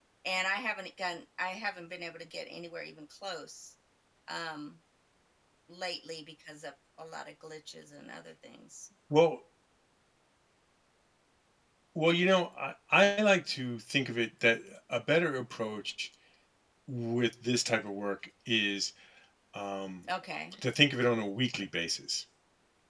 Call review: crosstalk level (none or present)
none